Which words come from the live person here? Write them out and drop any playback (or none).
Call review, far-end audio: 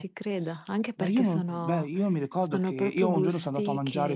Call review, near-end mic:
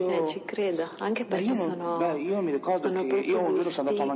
Mh-mh.